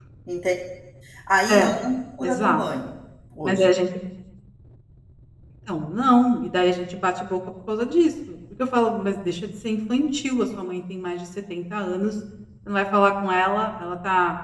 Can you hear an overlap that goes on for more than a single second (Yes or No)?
No